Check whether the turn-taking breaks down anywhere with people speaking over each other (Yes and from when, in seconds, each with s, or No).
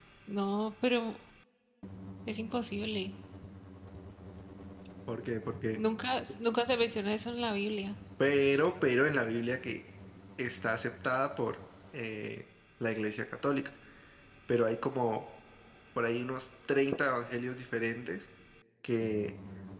No